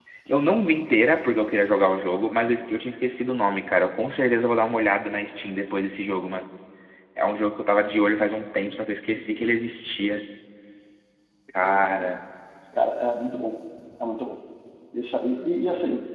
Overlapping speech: No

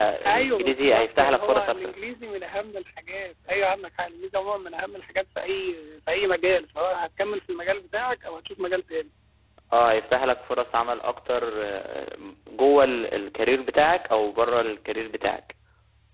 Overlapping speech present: Yes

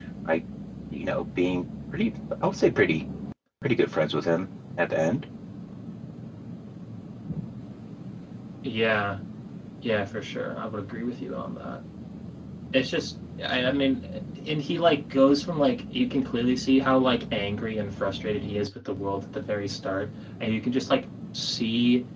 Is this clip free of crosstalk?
Yes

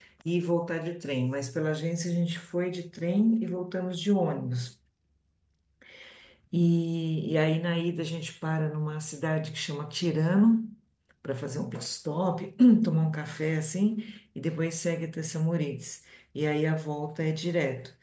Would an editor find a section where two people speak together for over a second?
No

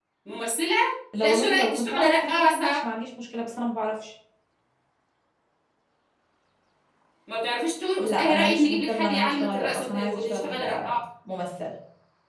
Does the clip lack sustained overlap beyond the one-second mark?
No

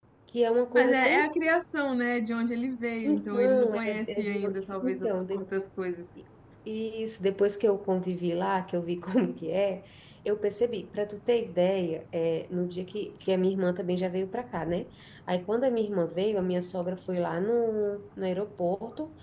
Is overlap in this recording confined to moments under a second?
No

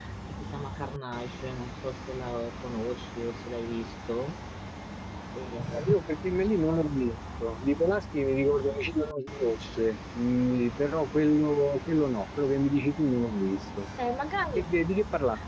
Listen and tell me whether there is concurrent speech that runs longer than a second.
No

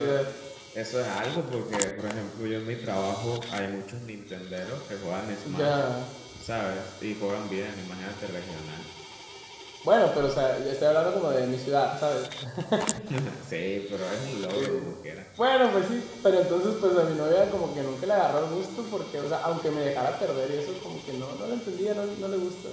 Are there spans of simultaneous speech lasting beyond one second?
No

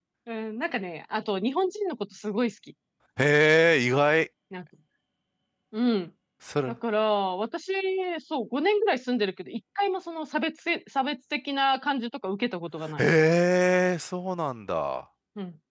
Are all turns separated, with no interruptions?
Yes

